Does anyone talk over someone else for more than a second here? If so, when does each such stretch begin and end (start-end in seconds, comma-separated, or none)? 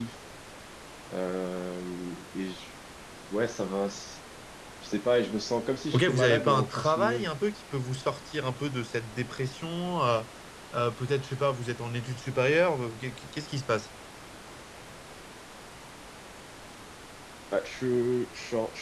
5.9-7.3